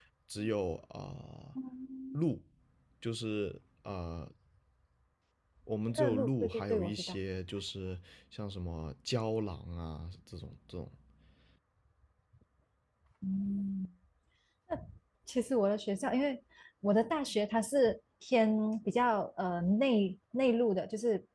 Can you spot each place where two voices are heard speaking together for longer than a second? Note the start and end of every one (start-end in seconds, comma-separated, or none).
6.0-7.2